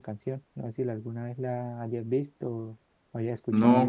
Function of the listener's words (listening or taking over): taking over